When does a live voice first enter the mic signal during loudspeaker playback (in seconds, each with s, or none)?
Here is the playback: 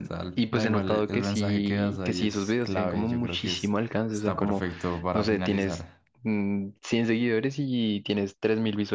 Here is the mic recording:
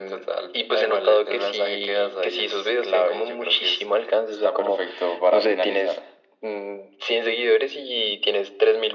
none